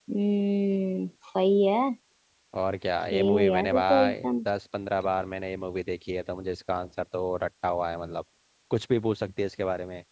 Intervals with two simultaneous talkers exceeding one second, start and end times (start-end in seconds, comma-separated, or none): 3.1-4.5